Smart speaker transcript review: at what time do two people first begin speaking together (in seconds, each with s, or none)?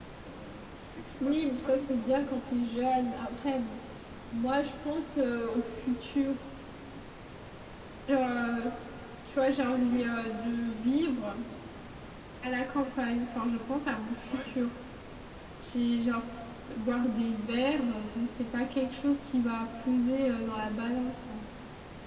1.2 s